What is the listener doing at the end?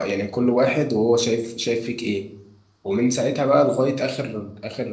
listening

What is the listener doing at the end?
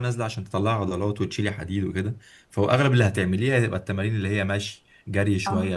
listening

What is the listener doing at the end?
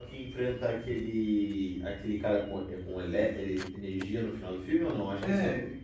taking over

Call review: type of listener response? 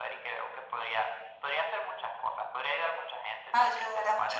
taking over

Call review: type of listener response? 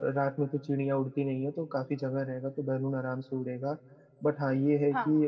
listening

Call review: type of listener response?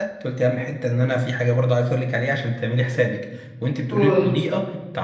listening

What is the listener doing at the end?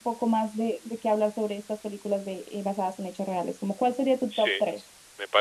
taking over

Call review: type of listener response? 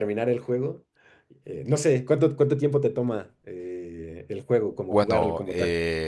taking over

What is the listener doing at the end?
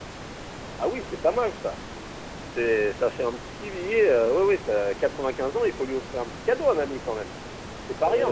taking over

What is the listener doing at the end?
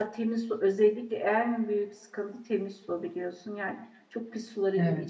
listening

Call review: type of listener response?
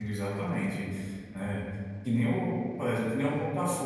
listening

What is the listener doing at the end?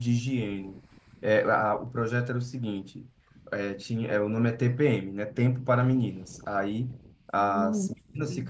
listening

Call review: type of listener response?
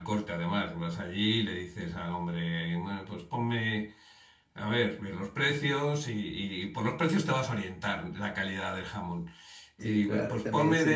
taking over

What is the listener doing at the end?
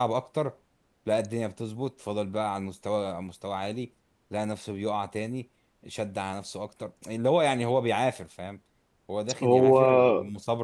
listening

